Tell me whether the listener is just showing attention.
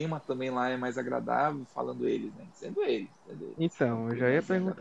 No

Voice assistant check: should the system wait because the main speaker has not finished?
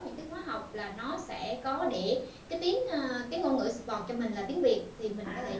Yes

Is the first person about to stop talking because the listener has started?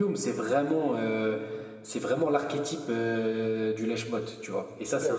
Yes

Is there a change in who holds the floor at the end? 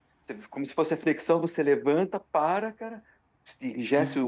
Yes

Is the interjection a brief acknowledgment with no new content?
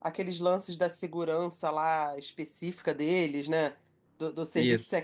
Yes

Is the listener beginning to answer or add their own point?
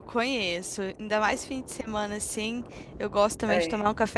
No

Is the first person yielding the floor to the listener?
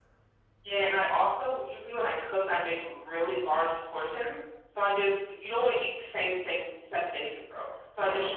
No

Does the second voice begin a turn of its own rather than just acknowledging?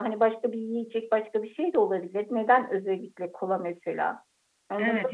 Yes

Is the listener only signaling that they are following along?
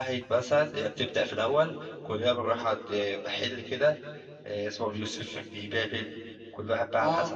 Yes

